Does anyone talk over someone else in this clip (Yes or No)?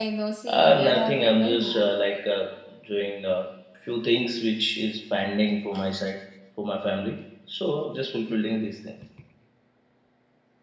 Yes